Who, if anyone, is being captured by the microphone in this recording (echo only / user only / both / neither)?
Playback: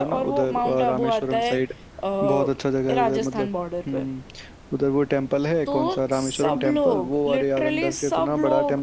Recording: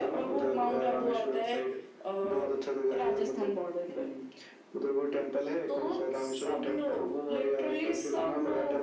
echo only